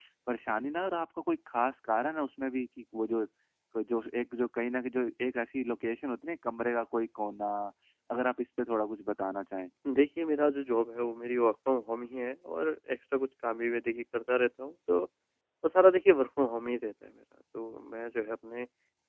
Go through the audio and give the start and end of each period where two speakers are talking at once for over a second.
none

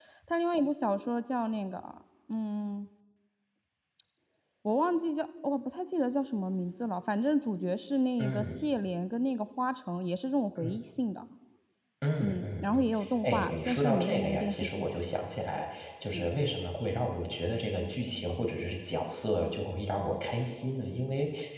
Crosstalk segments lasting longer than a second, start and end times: 12.2-14.9

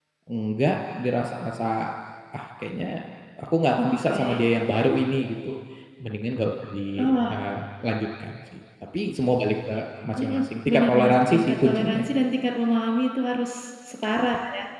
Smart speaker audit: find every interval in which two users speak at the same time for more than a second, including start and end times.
10.2-12.0

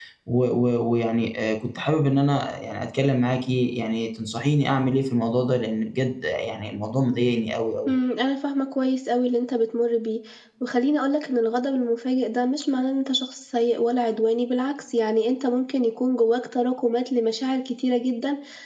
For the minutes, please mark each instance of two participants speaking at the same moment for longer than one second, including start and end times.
none

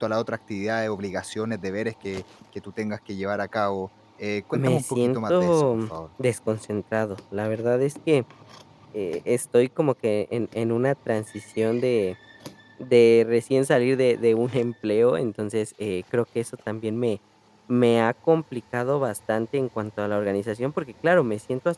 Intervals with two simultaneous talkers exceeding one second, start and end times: 4.5-5.9

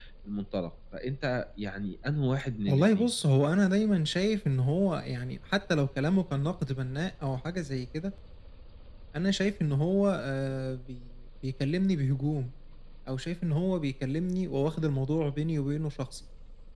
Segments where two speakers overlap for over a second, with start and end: none

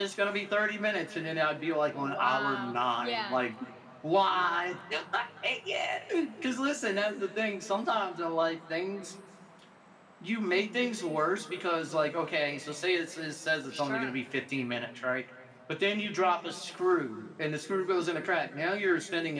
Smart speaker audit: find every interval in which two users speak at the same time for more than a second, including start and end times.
1.9-3.4

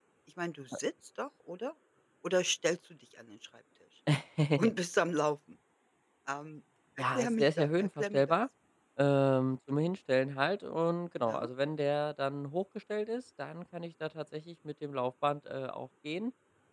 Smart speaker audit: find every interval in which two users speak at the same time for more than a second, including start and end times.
7.1-8.4

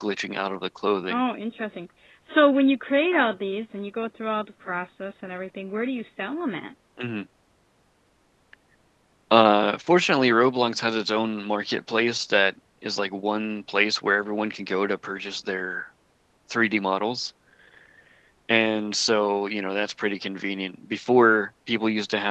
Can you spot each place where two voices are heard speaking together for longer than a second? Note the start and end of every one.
none

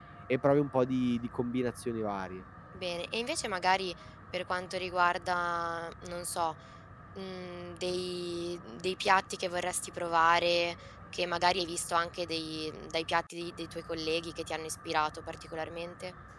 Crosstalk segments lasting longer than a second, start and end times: none

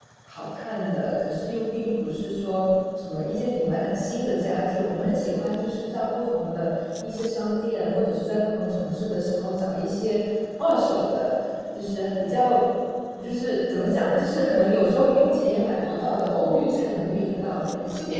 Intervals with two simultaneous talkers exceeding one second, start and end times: 15.8-17.2

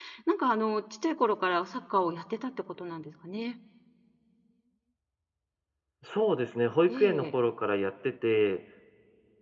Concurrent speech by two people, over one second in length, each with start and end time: none

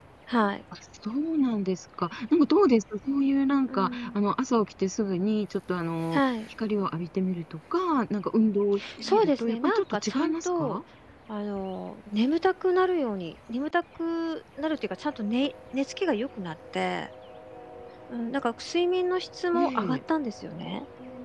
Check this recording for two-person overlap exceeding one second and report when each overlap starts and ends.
9.0-10.8

